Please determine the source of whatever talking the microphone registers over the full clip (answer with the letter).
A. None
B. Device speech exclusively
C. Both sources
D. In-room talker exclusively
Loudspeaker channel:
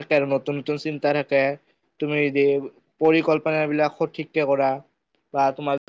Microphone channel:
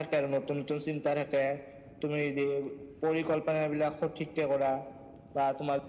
B